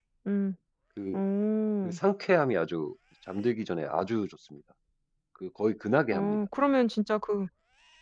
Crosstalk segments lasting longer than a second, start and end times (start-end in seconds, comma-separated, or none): none